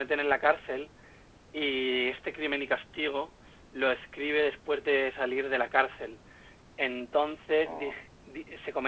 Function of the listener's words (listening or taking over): listening